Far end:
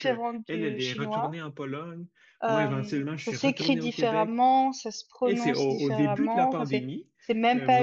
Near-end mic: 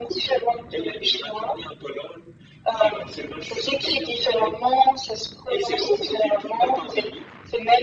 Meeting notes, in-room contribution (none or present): none